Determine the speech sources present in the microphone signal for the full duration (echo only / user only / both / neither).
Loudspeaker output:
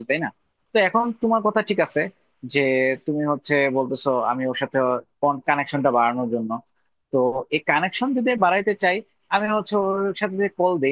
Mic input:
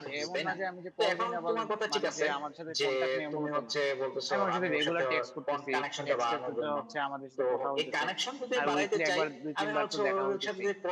both